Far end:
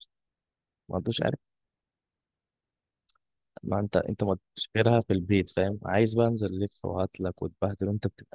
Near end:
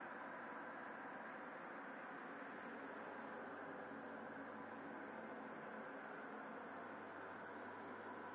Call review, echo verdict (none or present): none